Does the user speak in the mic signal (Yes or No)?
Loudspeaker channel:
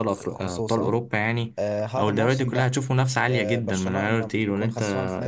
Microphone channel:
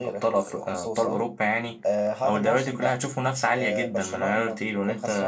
No